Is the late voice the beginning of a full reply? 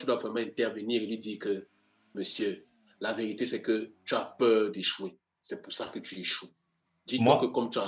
No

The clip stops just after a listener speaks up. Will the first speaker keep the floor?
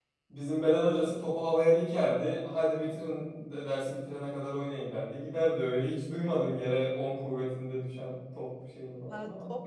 No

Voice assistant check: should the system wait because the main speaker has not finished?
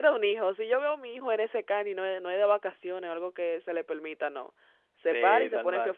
No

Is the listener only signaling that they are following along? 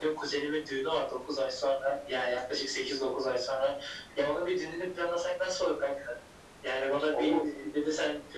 Yes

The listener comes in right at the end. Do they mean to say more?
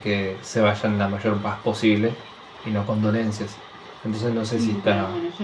Yes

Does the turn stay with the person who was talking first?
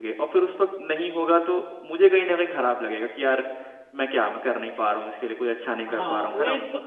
No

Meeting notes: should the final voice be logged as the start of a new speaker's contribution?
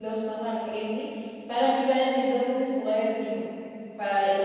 No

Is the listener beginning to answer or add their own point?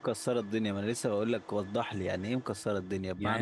Yes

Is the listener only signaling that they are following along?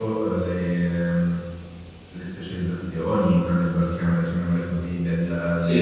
Yes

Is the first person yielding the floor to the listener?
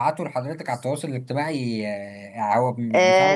Yes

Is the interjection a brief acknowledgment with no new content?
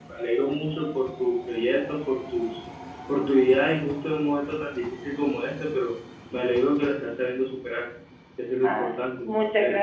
No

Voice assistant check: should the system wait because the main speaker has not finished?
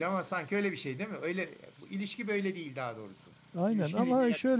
No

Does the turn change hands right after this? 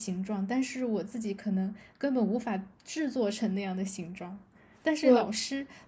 No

